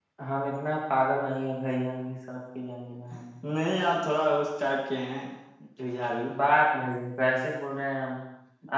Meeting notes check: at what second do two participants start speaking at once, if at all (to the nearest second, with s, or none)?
none